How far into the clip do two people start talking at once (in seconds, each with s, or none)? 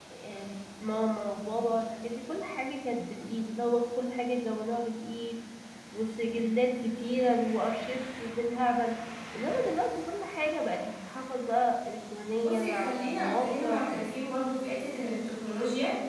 12.4 s